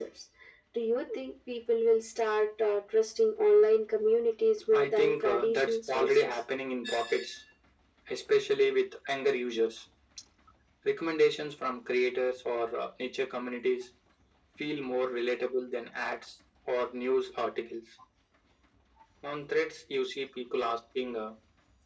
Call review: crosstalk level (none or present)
present